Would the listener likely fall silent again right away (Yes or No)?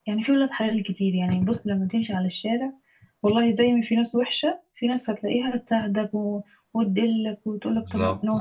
Yes